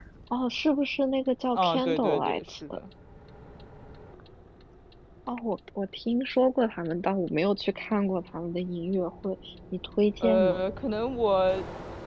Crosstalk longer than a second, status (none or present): present